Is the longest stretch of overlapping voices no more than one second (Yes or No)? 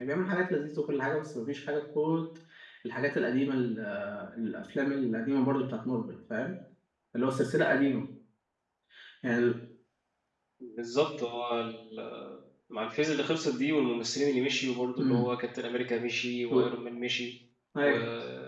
Yes